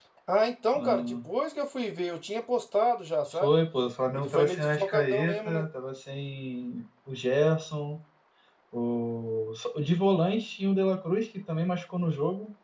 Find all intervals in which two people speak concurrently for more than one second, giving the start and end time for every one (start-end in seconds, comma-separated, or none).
4.2-5.6